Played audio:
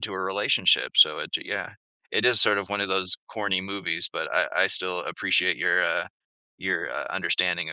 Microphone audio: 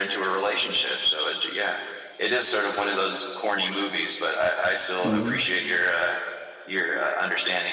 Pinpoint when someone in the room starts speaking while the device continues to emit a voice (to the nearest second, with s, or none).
5 s